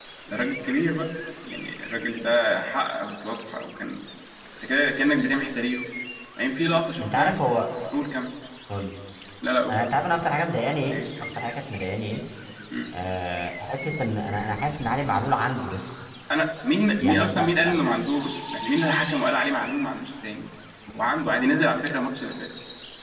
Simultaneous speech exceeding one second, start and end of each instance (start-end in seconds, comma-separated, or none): none